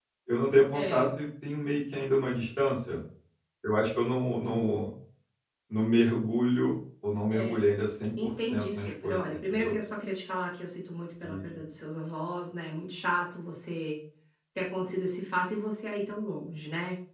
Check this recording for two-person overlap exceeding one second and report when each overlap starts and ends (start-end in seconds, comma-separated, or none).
8.2-9.8